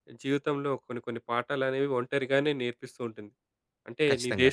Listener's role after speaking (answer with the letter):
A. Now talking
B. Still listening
B